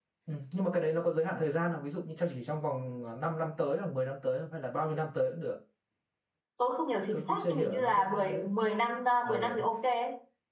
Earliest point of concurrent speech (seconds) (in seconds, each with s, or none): 7.1 s